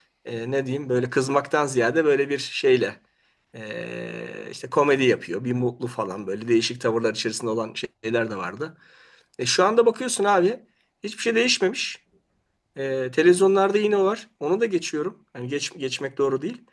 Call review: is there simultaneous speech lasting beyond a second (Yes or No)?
No